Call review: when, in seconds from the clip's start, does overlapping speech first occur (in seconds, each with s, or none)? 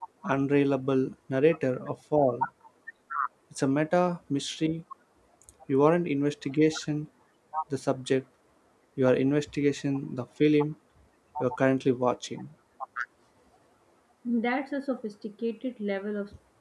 none